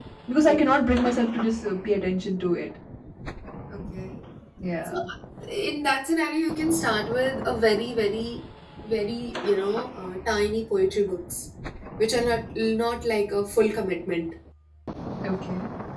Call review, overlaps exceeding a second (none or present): none